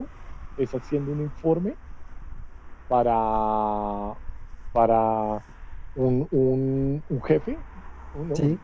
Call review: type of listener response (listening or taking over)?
listening